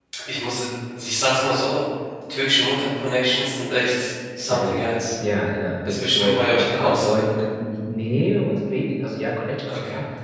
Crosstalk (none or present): present